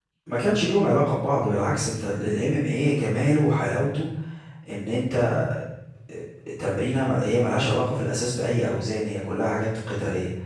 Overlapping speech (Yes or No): No